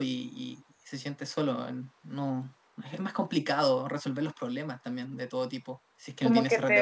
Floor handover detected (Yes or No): Yes